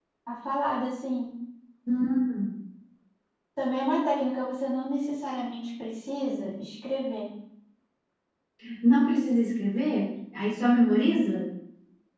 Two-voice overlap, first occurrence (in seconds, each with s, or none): none